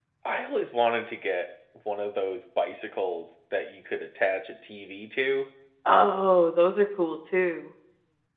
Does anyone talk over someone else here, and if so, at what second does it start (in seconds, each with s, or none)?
none